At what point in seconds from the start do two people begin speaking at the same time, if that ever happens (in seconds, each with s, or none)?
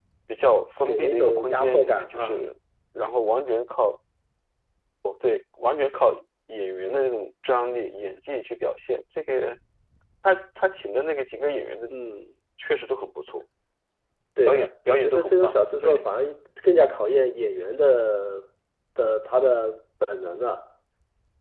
0.8 s